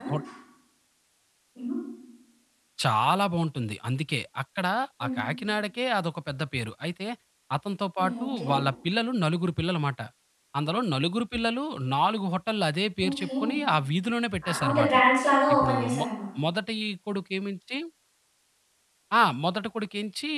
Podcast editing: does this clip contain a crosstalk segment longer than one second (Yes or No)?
No